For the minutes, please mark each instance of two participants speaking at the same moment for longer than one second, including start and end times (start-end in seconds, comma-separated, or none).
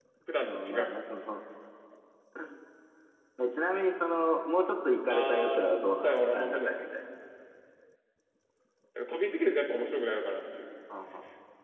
5.1-7.0